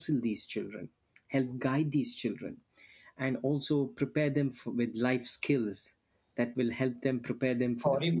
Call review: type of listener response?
taking over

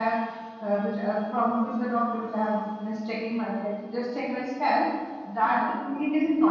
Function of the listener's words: listening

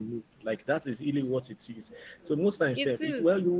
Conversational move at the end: listening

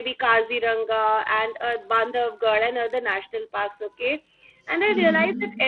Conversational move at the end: listening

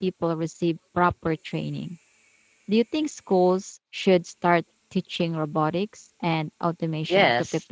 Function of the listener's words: taking over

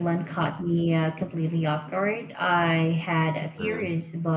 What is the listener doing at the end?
listening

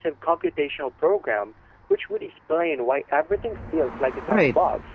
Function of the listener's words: taking over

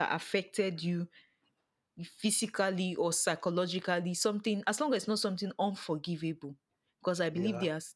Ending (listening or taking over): listening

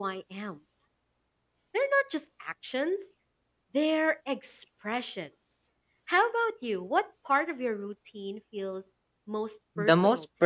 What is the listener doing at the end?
taking over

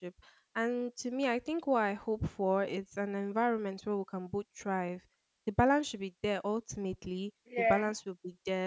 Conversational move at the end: listening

